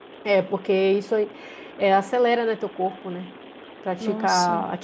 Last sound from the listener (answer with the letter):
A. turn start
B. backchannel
B